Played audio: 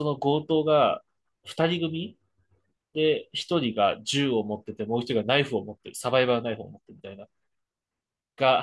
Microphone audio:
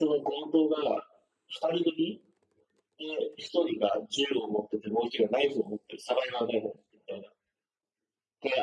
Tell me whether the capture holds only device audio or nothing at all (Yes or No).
Yes